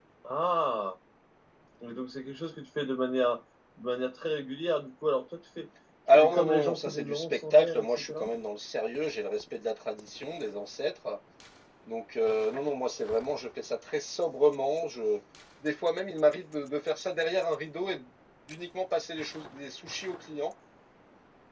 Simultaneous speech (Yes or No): Yes